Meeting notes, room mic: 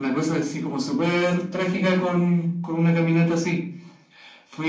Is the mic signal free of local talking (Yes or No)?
Yes